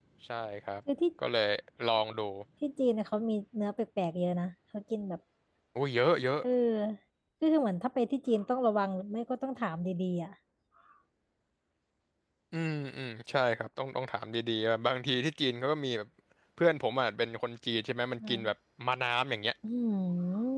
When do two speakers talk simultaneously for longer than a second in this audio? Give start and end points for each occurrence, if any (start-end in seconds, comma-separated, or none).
none